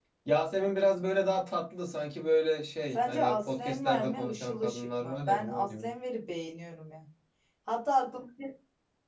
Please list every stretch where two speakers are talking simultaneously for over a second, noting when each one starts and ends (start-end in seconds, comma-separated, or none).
2.9-5.7